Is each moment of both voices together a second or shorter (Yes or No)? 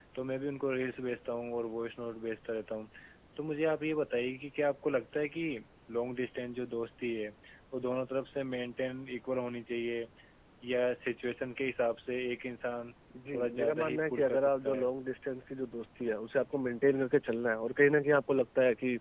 No